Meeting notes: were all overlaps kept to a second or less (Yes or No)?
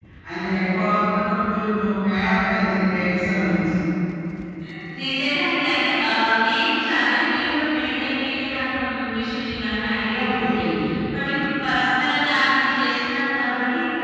Yes